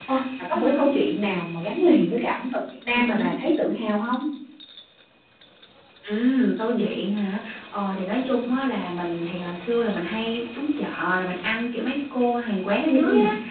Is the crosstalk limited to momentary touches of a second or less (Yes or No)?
Yes